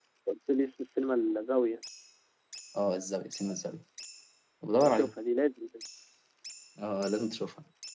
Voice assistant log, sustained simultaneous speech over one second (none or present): none